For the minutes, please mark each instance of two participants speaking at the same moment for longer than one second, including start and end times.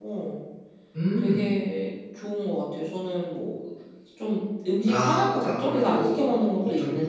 4.9-6.2

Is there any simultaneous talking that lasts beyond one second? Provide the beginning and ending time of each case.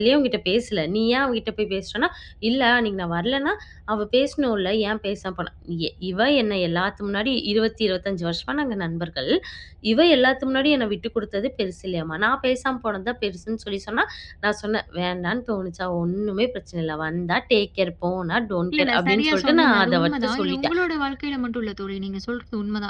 18.7-20.8

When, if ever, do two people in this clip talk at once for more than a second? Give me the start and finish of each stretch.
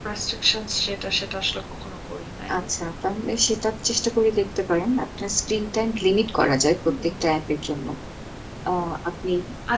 none

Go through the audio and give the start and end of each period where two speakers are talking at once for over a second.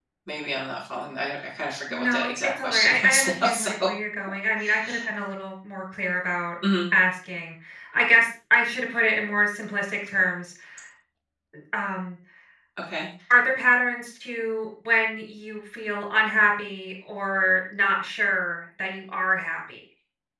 1.9-3.7

